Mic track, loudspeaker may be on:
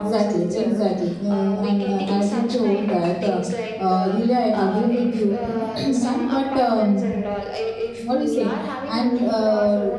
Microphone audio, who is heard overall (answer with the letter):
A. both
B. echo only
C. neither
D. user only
A